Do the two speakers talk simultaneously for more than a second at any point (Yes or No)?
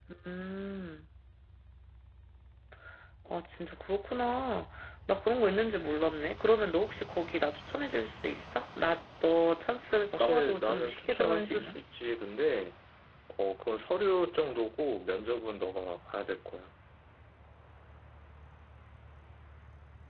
Yes